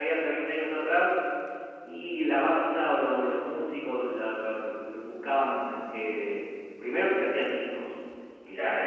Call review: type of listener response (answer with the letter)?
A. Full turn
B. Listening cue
A